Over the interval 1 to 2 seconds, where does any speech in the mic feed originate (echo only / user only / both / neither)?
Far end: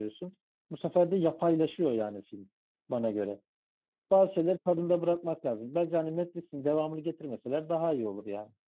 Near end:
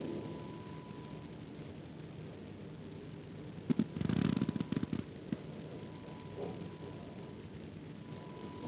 neither